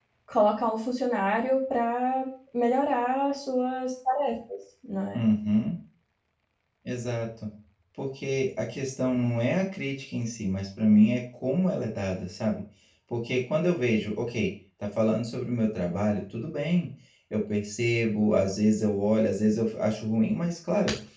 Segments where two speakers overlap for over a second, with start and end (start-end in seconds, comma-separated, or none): none